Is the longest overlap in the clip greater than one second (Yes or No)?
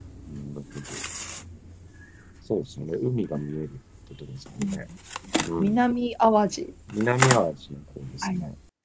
No